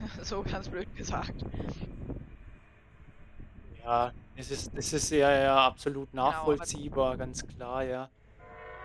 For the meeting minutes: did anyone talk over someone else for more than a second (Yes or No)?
No